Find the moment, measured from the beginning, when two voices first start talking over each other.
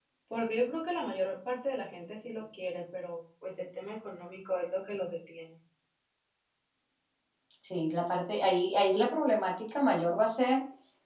none

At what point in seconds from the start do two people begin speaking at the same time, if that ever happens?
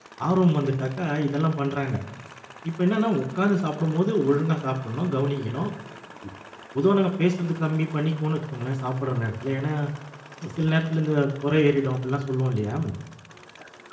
none

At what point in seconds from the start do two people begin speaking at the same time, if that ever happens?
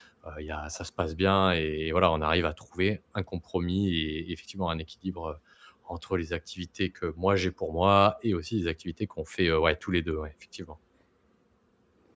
none

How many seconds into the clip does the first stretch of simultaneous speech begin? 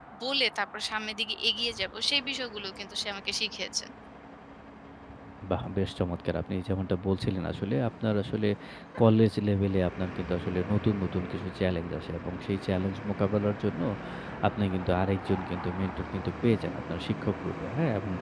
none

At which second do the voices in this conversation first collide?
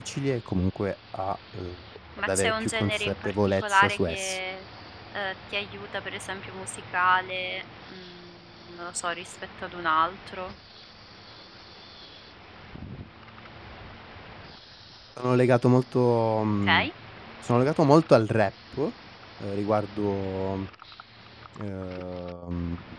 2.3 s

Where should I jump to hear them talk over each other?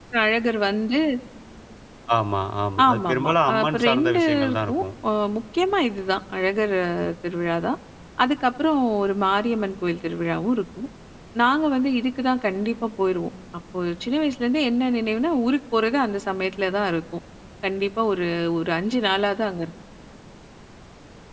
2.9 s

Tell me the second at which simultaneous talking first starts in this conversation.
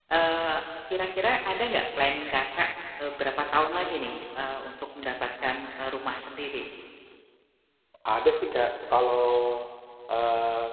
none

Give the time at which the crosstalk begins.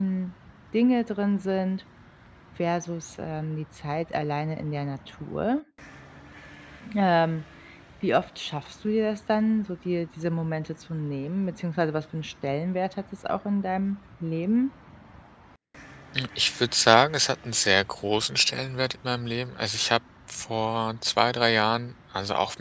none

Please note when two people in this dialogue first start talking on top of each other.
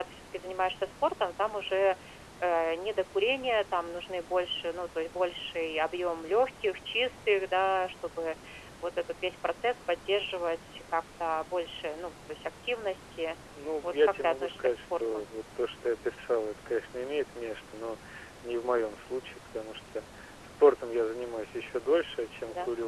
13.8 s

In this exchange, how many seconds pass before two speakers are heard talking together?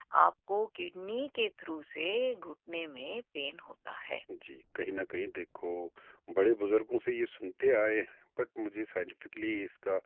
none

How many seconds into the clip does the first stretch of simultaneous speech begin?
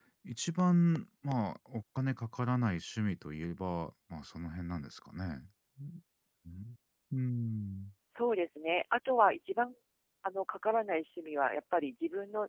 none

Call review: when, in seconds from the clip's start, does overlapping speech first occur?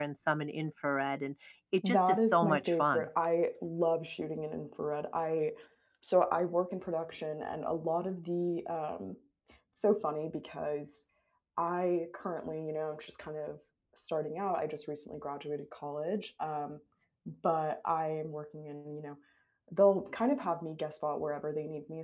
1.8 s

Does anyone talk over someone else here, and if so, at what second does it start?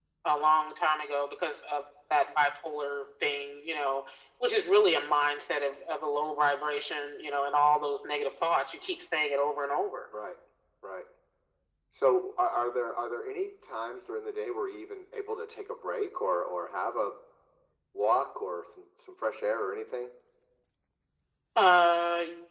none

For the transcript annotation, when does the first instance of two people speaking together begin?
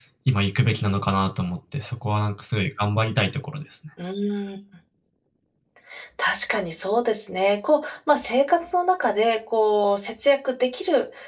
none

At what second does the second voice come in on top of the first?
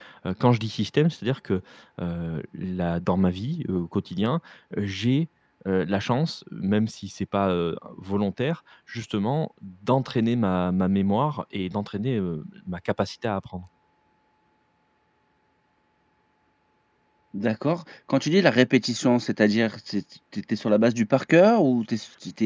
none

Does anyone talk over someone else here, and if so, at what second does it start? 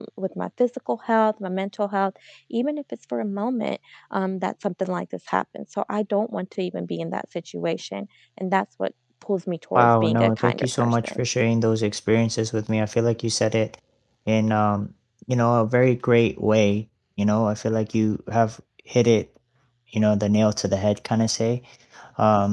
9.8 s

